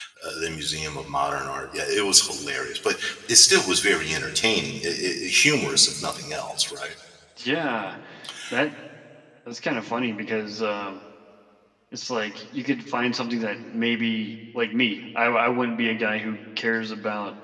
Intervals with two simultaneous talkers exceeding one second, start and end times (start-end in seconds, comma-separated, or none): none